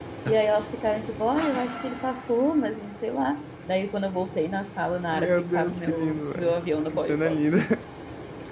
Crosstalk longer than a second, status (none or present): present